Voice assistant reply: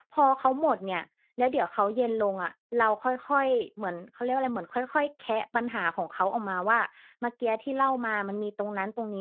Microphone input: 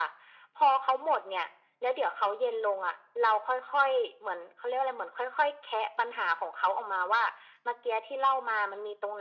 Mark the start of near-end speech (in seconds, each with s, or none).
none